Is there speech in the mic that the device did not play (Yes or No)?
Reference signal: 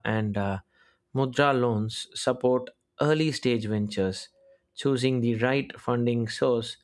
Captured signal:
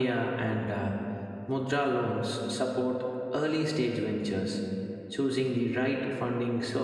No